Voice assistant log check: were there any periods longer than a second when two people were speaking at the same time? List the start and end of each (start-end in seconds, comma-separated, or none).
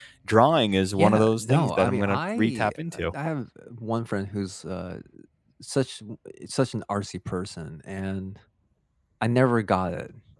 1.0-2.7